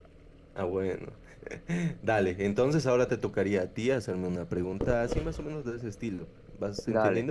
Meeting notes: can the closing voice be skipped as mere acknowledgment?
No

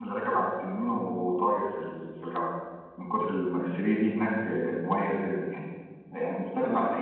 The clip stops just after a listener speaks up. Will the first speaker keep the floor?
Yes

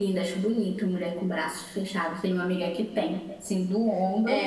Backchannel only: No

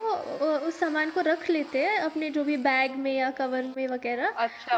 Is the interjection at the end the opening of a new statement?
Yes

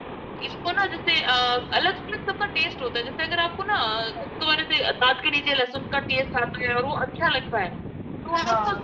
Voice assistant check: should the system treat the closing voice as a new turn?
No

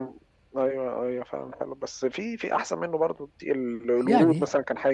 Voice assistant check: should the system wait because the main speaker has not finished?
Yes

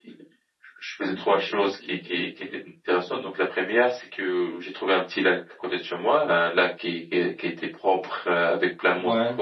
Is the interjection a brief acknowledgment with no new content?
Yes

